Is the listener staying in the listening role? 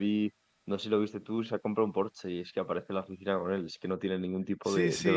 No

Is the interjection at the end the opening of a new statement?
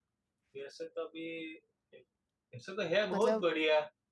No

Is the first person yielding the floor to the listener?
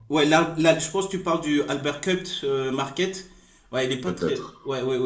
No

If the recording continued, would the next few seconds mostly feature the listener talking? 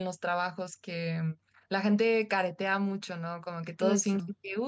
No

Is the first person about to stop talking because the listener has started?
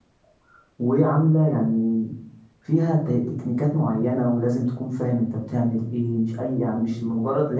No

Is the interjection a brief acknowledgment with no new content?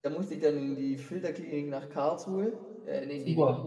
Yes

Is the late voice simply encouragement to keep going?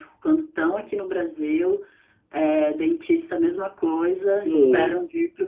Yes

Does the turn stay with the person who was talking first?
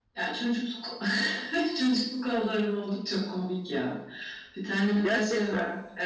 Yes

